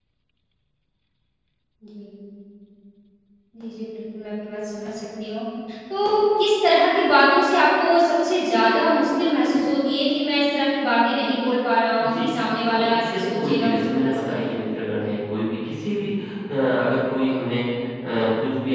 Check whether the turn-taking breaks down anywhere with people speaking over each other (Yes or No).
Yes